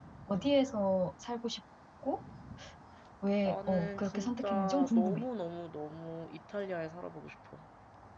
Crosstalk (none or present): present